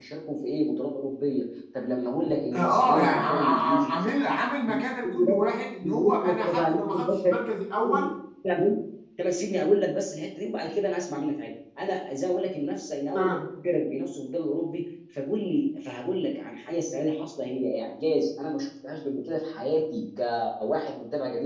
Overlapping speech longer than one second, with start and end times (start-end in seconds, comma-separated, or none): 2.5-4.3, 5.8-7.3